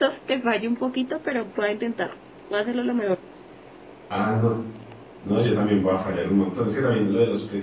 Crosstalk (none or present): none